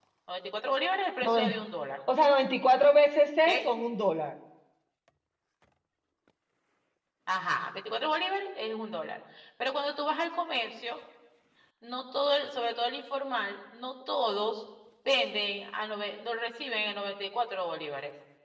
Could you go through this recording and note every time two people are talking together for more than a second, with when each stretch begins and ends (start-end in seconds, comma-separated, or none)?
none